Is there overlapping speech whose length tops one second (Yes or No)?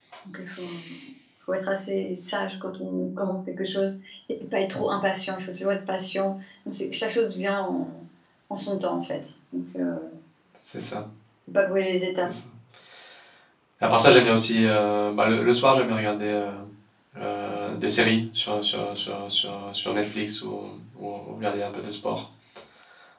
No